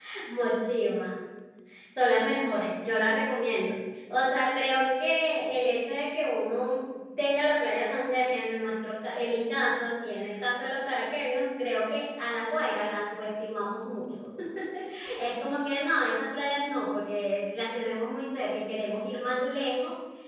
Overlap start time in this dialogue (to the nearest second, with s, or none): none